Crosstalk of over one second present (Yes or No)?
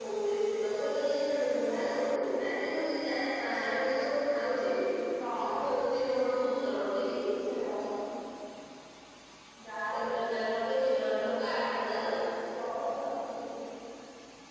No